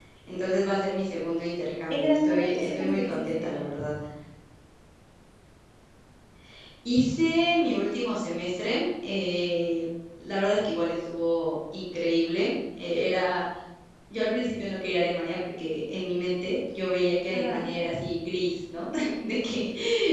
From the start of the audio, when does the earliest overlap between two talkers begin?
1.9 s

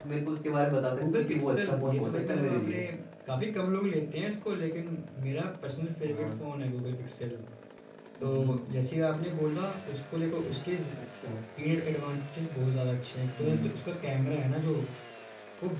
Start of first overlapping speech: 1.0 s

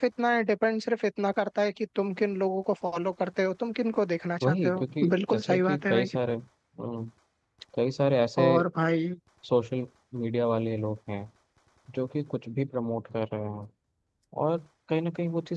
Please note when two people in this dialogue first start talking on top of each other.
4.4 s

